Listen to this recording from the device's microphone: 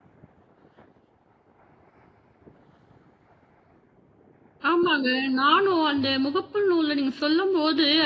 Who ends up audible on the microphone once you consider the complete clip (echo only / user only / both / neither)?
user only